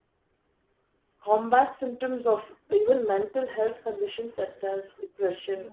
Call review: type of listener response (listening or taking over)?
listening